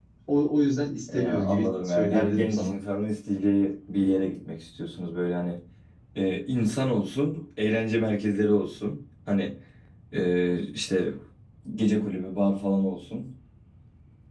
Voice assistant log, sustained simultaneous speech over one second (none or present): present